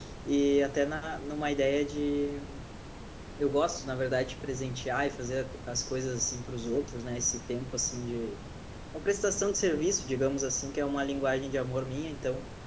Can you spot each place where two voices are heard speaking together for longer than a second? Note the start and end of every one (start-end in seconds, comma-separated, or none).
none